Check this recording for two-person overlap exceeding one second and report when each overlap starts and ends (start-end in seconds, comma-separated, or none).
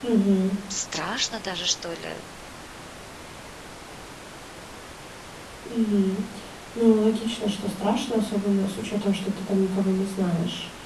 none